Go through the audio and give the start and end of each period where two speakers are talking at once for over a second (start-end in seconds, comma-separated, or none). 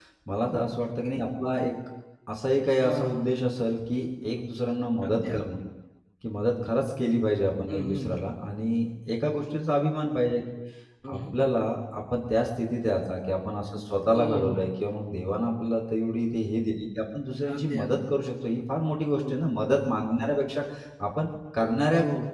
none